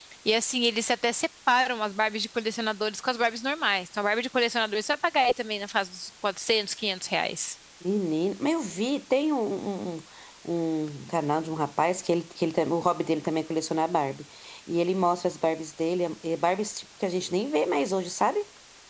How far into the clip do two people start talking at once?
none

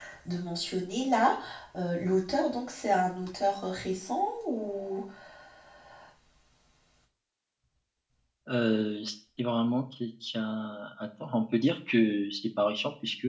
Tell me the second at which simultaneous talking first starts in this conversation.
none

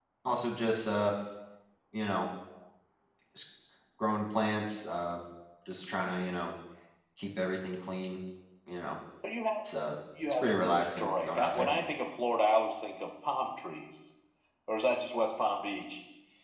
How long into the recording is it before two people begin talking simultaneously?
10 s

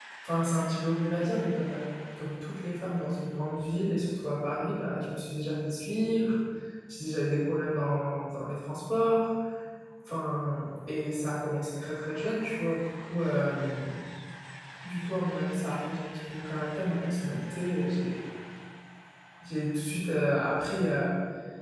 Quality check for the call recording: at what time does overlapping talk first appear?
none

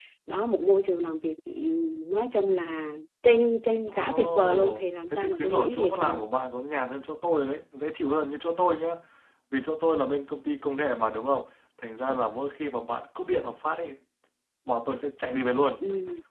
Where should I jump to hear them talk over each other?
4 s

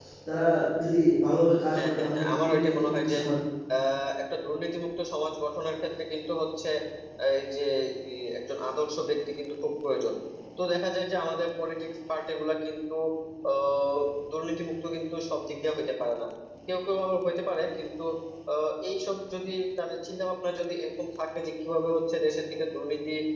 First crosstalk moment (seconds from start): 2 s

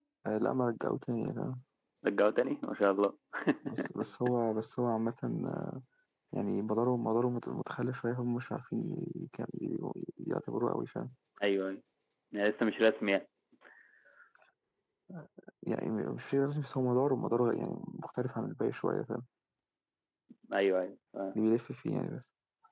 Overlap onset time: none

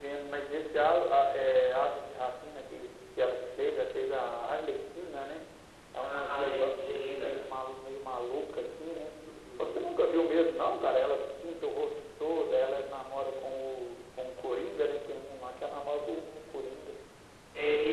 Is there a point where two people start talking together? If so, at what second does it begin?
6 s

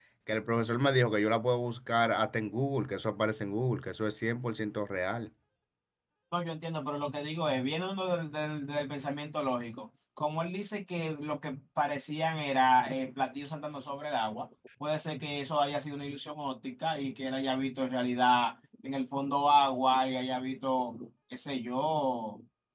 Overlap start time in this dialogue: none

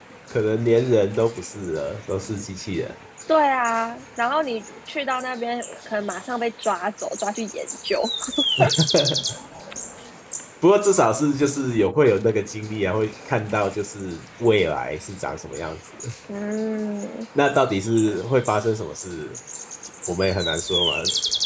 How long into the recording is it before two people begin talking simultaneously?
none

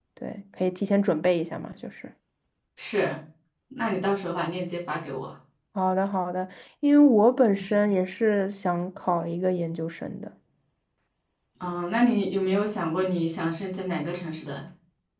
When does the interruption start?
none

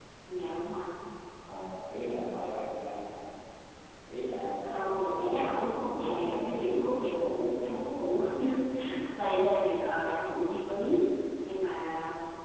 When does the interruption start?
5 s

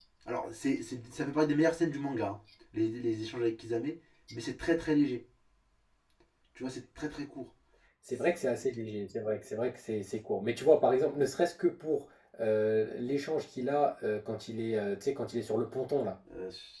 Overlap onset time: none

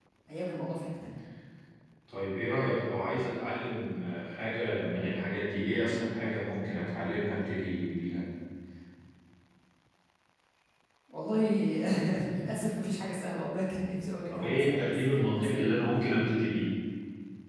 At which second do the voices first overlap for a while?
14 s

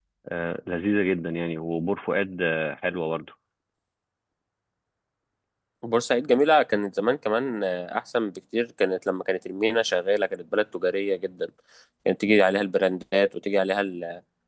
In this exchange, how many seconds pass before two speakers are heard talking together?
none

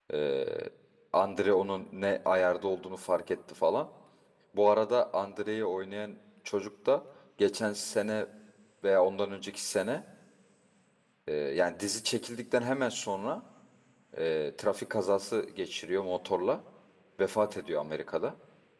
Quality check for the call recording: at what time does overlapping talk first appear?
none

